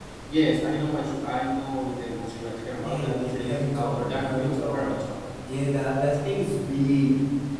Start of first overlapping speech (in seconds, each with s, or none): 2.8 s